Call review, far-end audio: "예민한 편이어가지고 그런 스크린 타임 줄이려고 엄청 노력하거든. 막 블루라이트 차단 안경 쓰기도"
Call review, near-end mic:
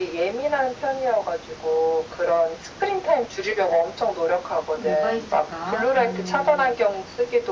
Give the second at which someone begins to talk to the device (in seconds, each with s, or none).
4.7 s